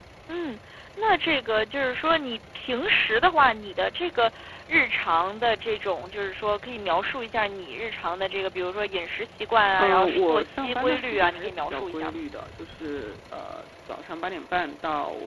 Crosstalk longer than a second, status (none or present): present